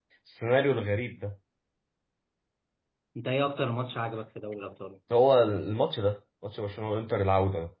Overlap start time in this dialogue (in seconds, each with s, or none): none